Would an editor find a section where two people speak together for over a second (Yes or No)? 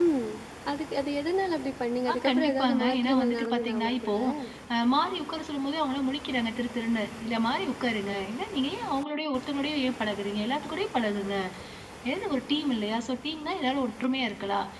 Yes